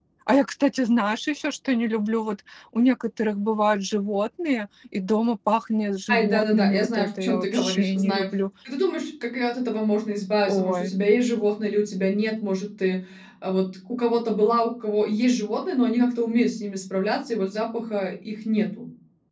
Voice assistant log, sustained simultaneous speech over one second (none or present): present